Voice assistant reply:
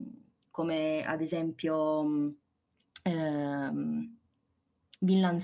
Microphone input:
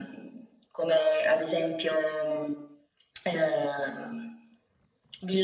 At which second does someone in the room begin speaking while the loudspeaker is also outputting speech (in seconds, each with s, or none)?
none